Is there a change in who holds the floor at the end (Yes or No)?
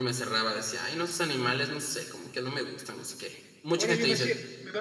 Yes